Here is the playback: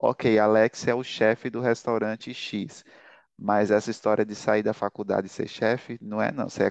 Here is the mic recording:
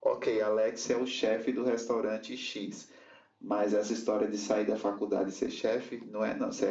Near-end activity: none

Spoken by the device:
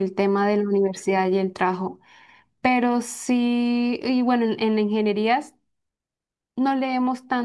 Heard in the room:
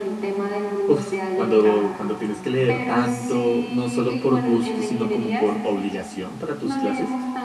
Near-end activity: present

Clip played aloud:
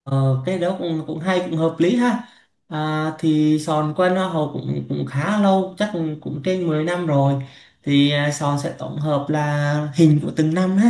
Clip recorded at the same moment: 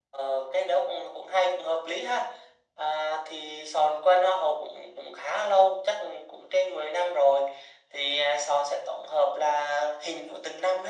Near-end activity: none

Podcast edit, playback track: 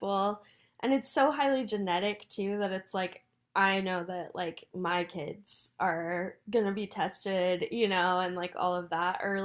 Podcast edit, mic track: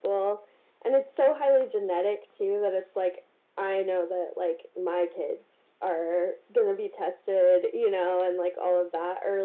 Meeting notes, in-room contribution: none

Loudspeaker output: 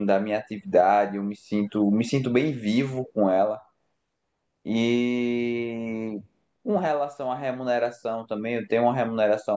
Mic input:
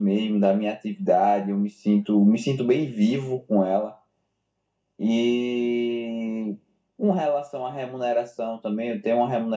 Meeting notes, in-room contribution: none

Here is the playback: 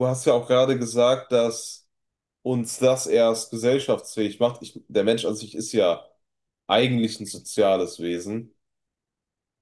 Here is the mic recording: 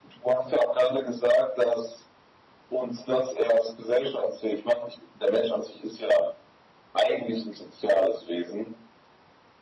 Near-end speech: none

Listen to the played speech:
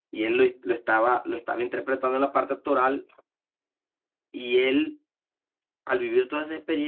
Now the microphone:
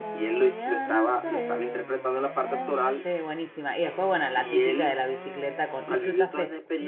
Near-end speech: present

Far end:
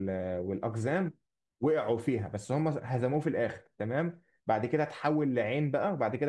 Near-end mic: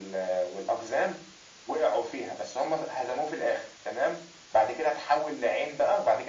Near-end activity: none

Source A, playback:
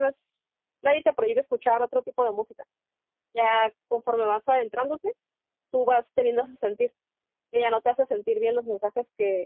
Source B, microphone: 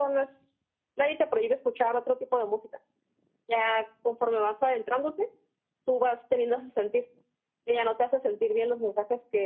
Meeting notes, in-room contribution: none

